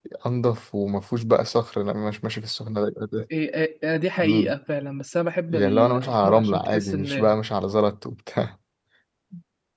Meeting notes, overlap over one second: present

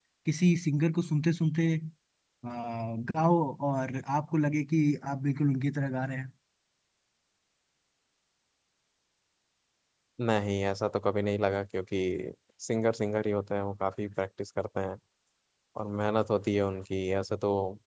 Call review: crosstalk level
none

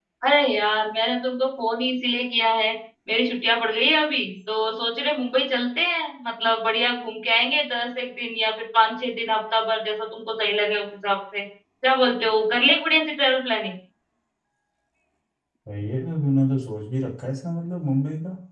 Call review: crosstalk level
none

